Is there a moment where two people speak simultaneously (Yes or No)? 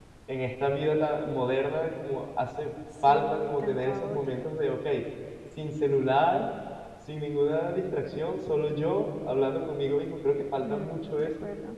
Yes